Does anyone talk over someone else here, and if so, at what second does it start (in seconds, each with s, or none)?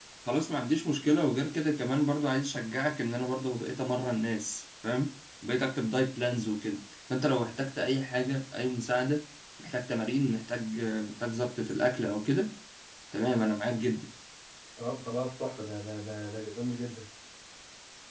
none